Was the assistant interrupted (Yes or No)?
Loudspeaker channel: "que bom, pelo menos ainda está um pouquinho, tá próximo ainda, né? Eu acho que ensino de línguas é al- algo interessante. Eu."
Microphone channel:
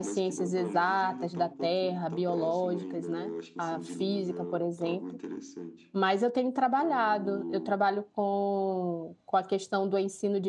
Yes